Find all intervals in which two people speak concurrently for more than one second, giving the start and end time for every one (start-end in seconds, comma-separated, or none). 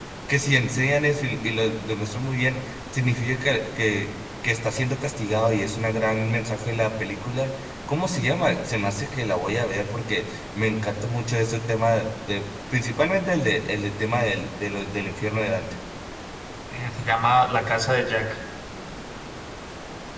none